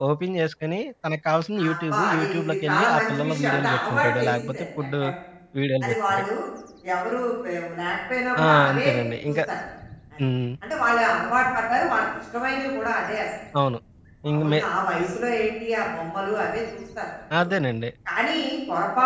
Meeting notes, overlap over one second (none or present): present